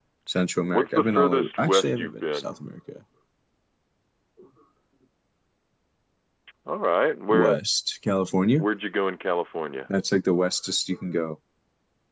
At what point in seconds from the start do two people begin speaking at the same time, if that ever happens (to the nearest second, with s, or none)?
1 s